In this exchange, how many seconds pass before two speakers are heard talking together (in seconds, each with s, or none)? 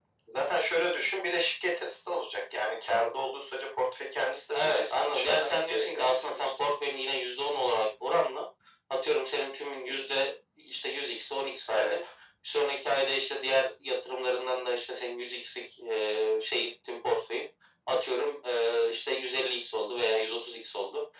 4.5 s